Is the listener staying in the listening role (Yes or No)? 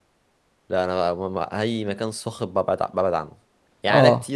Yes